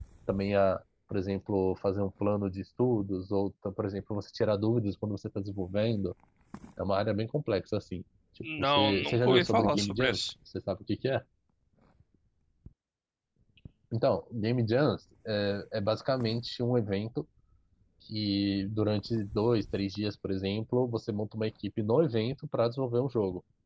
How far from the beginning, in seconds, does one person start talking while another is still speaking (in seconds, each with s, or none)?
8.4 s